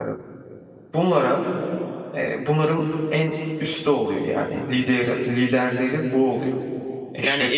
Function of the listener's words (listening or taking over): taking over